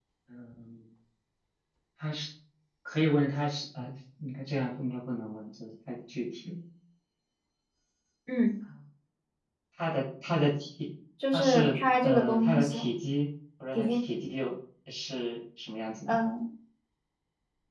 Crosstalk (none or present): present